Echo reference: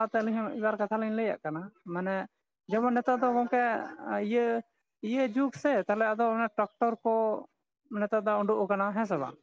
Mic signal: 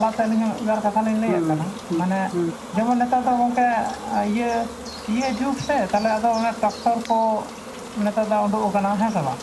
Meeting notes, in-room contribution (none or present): present